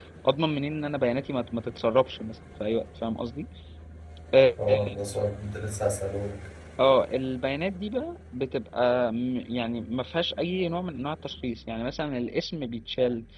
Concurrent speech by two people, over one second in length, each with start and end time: none

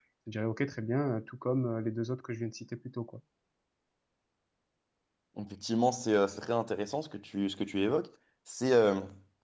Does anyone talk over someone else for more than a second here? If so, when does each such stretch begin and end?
none

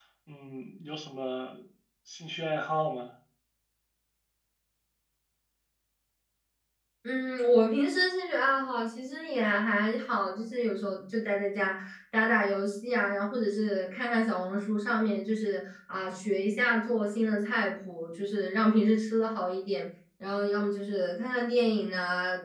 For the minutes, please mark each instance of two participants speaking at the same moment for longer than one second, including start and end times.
none

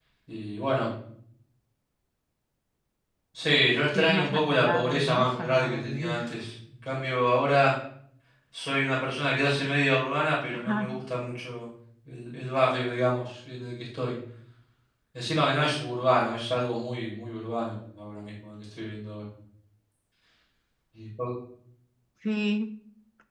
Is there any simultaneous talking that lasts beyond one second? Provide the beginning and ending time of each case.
3.9-6.2

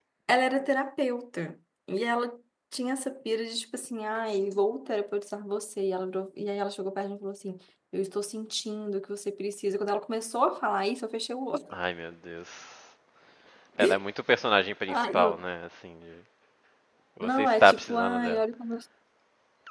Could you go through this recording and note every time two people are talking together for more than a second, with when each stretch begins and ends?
17.2-18.4

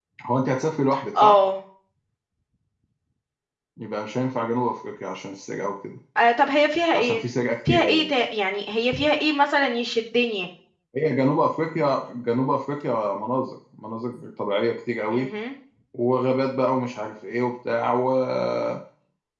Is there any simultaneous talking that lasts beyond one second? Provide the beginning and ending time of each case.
none

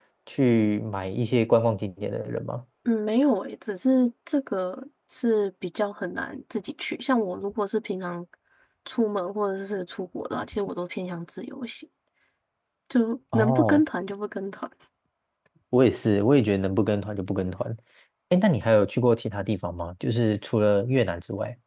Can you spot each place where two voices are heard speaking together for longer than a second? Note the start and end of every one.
none

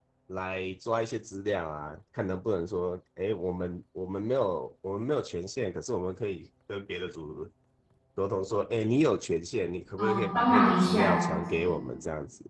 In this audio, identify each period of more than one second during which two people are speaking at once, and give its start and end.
10.0-11.8

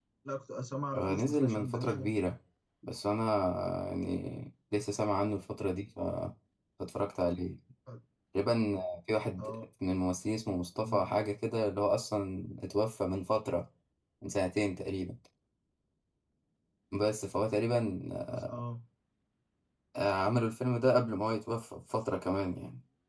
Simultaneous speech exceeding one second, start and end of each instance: 0.9-2.1

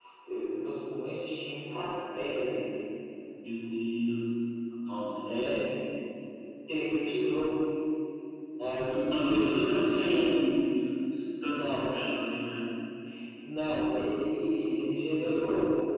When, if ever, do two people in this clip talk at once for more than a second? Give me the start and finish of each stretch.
9.0-10.3

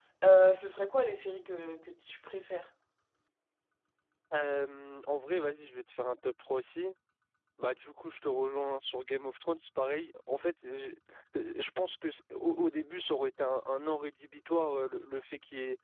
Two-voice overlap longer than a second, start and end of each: none

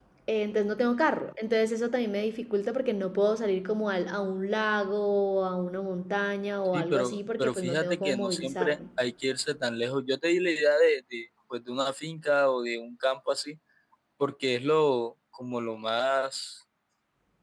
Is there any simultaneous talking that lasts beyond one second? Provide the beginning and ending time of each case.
6.7-8.8

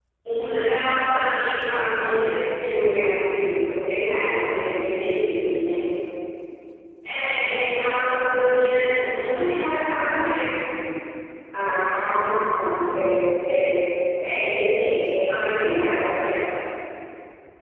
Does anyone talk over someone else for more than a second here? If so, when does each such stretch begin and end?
none

